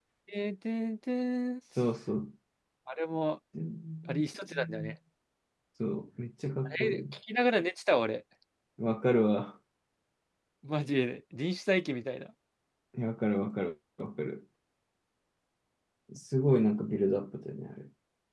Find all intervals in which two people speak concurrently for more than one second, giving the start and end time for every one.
none

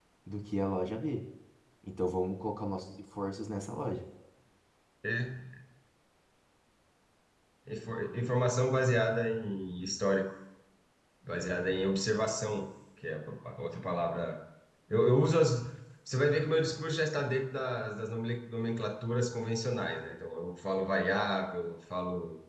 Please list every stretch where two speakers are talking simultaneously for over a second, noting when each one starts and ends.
none

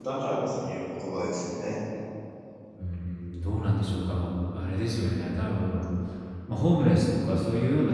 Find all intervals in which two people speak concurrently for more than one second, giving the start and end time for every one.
none

